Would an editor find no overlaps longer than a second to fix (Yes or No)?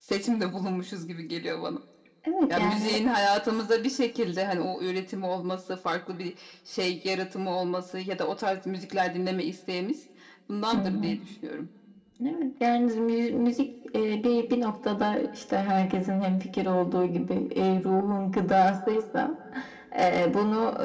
Yes